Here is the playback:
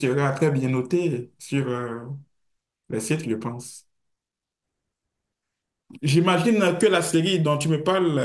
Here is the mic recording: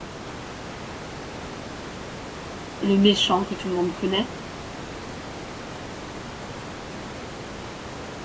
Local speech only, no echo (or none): le méchant que tout le monde connaît.